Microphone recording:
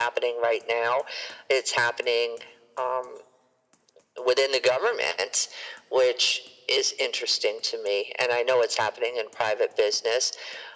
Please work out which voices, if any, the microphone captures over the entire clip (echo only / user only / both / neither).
echo only